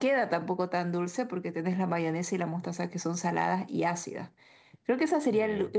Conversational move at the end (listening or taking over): listening